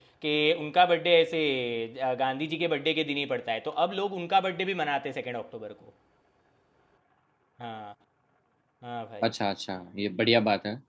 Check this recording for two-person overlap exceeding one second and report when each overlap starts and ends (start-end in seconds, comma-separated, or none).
none